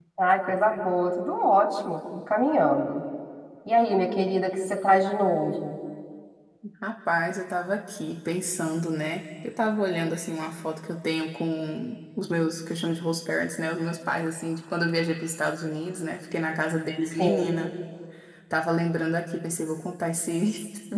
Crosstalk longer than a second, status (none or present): none